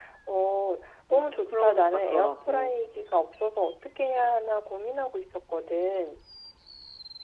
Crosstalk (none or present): present